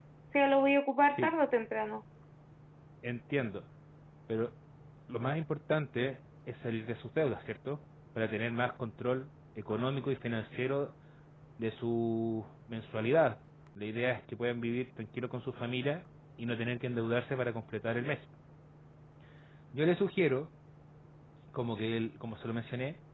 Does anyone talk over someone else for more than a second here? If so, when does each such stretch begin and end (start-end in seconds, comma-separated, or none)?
none